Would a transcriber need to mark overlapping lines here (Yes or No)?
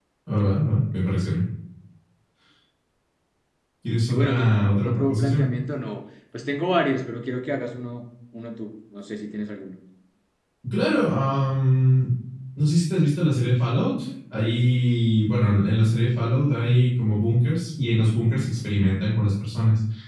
Yes